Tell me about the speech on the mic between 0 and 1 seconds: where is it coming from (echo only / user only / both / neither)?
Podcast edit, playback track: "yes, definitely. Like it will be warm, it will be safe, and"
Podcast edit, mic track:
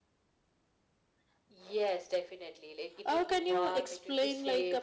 neither